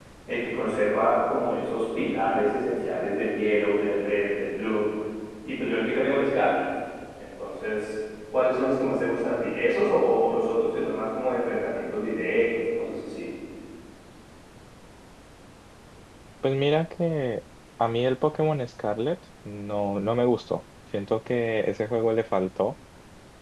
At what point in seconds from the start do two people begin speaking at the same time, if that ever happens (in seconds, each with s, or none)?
none